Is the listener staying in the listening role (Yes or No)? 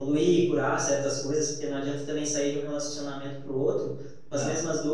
Yes